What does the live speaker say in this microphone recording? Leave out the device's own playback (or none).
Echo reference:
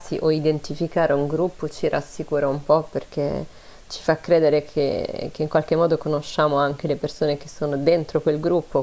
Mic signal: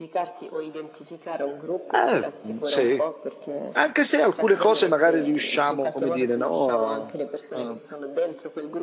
Eh, sì, anche se alcune cose magari riusciamo, come dire, no, a, a-